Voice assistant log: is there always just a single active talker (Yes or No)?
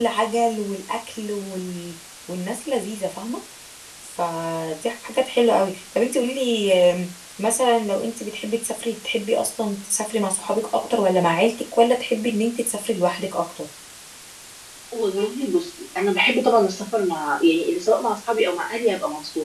Yes